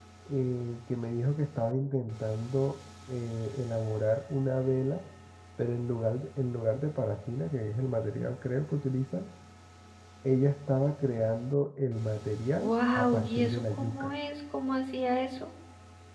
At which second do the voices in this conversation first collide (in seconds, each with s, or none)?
12.6 s